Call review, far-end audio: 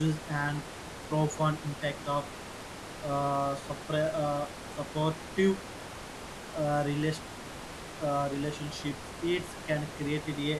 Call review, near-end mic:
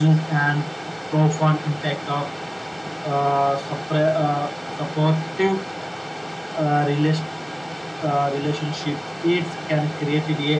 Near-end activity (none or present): none